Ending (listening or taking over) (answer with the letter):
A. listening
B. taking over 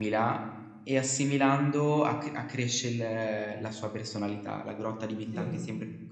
A